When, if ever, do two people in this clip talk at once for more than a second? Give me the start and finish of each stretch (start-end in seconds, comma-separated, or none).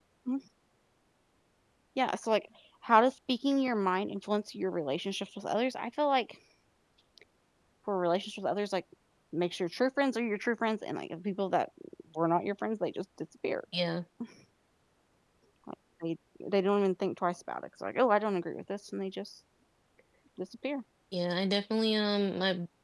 none